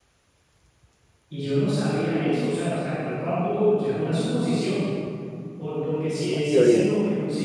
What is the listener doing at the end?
listening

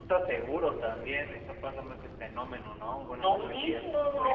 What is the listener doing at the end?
taking over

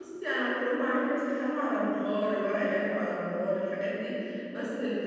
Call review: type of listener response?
listening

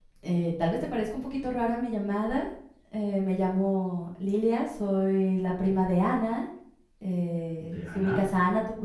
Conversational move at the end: listening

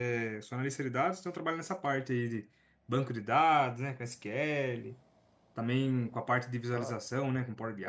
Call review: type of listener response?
listening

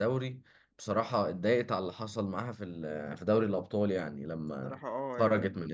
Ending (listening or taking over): taking over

